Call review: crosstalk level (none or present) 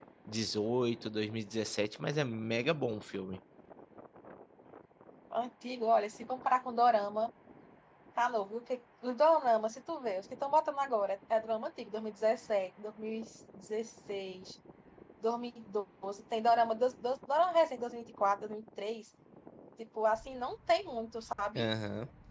none